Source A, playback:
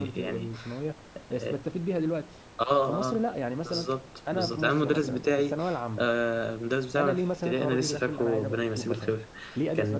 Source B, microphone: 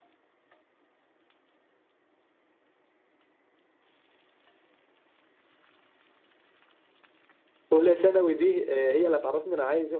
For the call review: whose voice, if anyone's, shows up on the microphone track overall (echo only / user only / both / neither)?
user only